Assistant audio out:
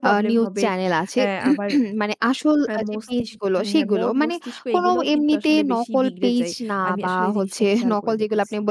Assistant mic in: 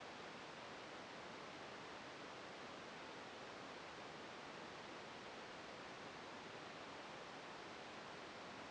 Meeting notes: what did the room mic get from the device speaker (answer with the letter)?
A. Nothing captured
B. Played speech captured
A